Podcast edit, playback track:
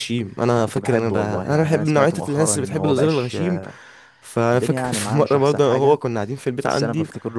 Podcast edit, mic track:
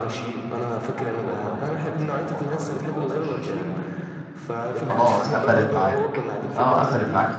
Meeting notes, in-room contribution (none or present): present